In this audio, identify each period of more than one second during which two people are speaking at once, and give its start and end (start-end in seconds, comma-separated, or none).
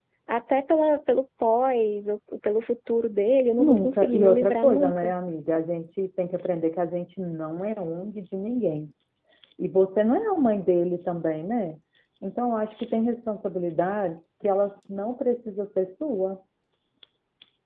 3.6-5.1